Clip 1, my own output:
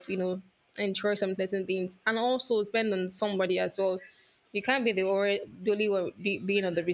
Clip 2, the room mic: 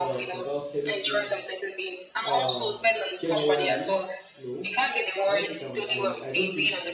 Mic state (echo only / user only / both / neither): both